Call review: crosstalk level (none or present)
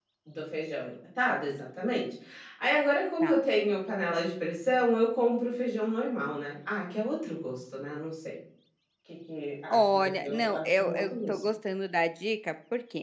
present